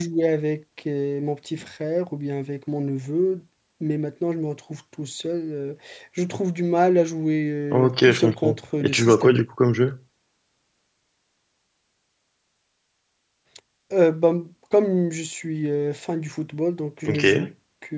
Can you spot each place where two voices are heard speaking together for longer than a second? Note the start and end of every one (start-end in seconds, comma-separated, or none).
7.7-9.4